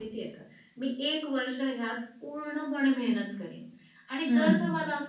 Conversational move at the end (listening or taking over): listening